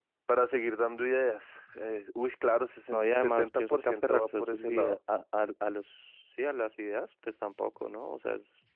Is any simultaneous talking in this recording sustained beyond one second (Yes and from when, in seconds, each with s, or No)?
Yes, from 2.9 s